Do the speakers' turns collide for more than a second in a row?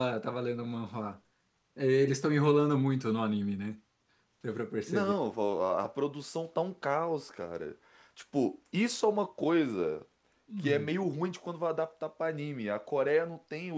No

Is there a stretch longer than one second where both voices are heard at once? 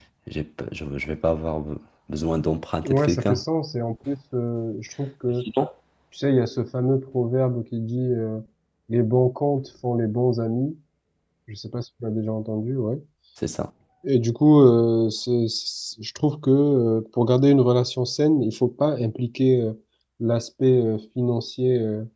No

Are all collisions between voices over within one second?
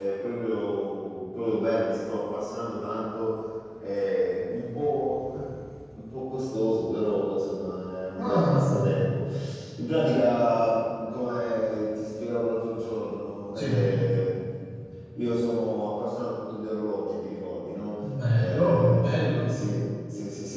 No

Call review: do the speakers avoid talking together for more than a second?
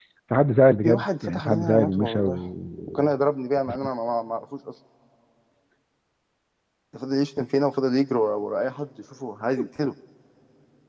No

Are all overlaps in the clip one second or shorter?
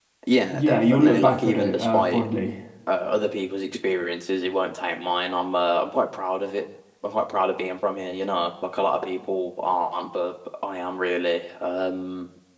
No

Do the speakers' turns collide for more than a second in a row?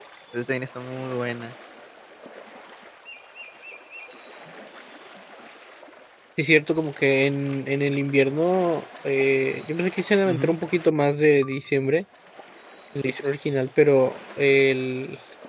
No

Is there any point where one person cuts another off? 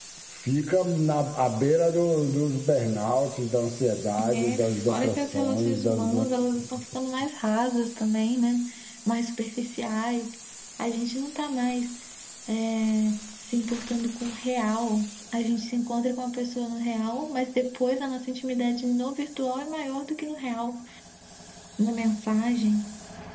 Yes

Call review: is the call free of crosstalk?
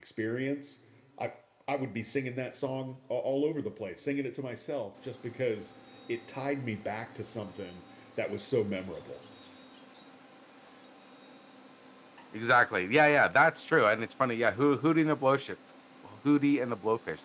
Yes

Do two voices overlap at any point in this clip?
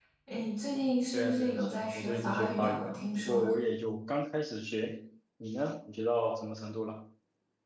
Yes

